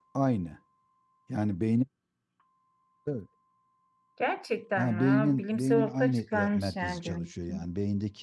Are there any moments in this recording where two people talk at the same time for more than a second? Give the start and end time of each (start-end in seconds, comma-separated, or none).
4.8-7.5